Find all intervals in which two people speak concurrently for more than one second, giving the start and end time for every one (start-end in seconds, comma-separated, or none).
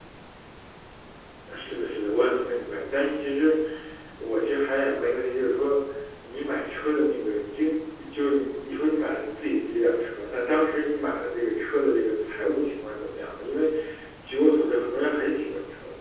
none